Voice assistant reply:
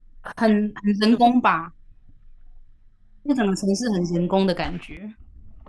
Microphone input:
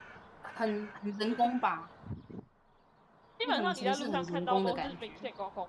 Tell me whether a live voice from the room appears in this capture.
Yes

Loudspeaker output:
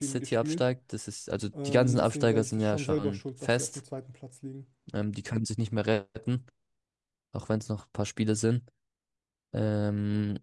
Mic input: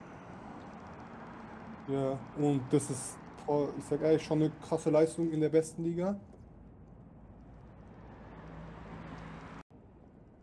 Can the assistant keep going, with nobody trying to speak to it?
No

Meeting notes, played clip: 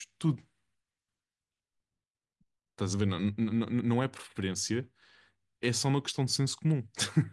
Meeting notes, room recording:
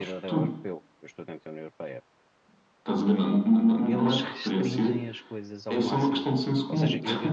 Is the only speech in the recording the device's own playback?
No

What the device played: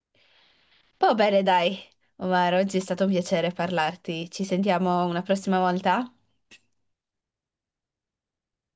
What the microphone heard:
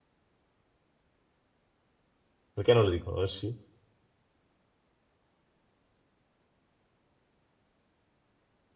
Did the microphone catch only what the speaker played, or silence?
No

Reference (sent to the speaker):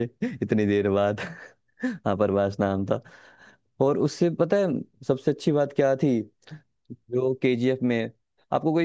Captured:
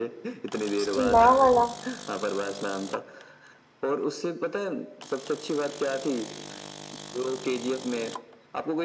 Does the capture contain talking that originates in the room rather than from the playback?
Yes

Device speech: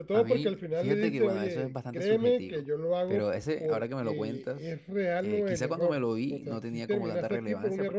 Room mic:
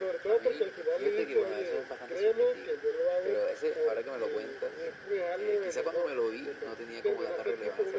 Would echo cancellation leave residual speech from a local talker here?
No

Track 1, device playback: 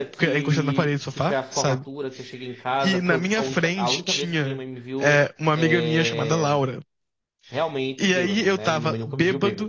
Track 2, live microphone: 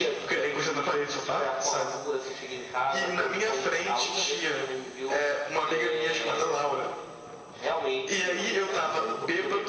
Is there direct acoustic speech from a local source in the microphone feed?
No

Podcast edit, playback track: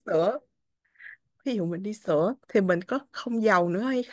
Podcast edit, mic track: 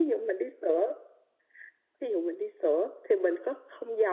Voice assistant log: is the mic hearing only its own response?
Yes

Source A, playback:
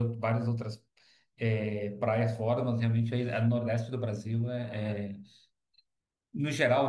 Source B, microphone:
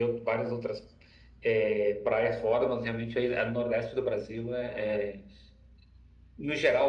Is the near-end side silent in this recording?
Yes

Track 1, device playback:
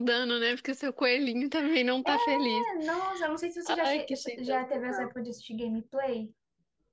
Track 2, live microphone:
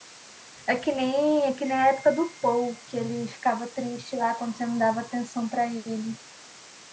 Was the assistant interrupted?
Yes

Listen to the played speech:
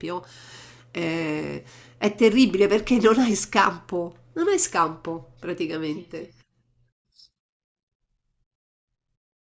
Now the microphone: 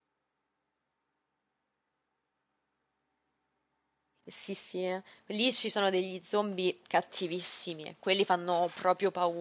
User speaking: Yes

